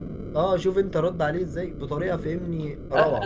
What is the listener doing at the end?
taking over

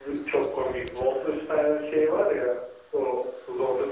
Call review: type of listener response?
listening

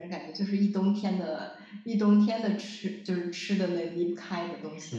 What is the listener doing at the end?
taking over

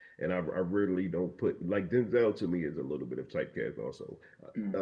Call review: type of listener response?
listening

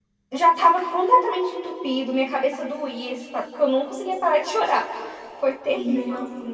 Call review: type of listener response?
taking over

